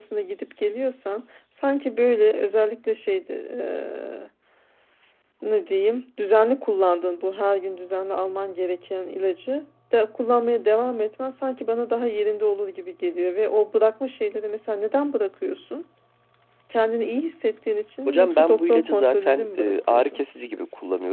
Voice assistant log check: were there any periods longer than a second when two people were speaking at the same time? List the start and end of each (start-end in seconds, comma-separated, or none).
18.0-20.2